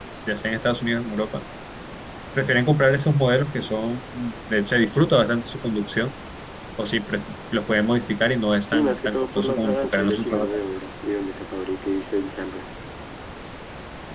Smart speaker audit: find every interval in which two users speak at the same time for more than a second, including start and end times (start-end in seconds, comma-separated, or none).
8.7-10.6